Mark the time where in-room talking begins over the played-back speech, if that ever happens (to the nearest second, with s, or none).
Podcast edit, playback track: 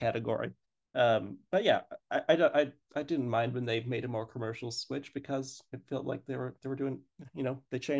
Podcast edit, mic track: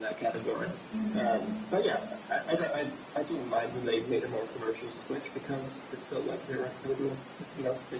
1 s